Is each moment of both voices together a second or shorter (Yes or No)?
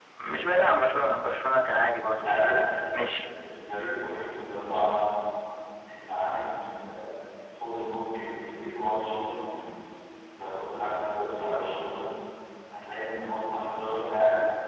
Yes